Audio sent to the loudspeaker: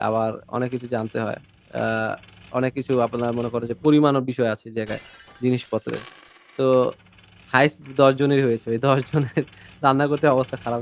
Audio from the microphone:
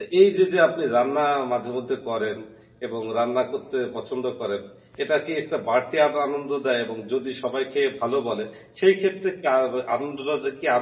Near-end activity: present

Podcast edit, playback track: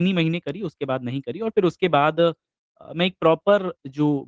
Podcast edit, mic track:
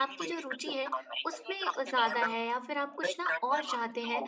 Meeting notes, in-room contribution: present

